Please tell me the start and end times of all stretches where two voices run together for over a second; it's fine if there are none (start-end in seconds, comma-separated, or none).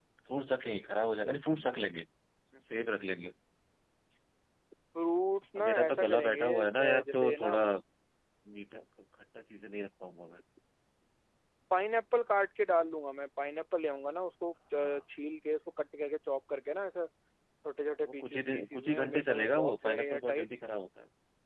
5.6-7.5, 18.0-20.5